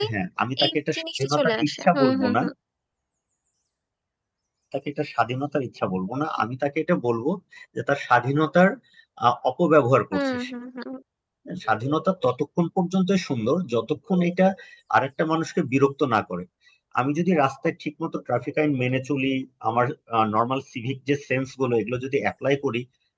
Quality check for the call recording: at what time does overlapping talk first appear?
0.6 s

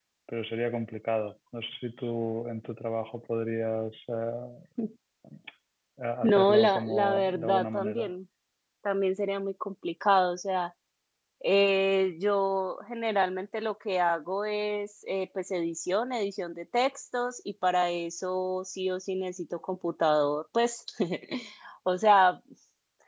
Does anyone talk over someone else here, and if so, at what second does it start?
6.2 s

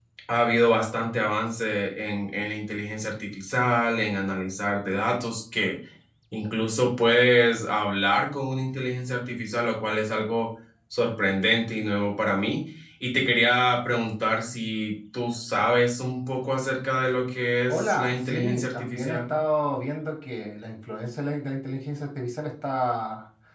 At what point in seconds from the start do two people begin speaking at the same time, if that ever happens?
17.7 s

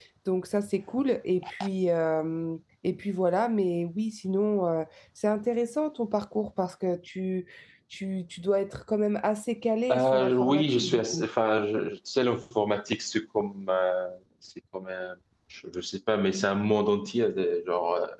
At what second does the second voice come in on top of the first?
9.9 s

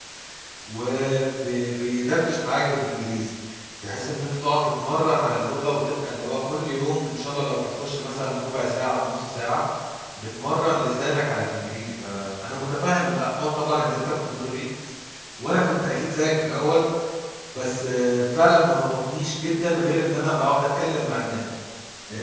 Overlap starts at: none

